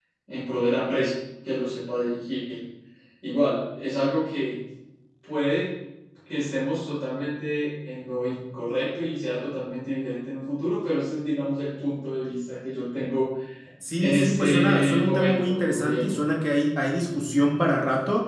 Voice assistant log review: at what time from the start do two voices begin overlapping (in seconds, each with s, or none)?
14.0 s